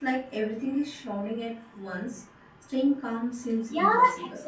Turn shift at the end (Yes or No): Yes